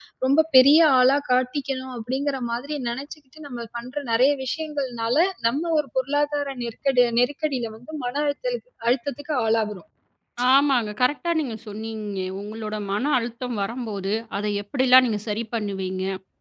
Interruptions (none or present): none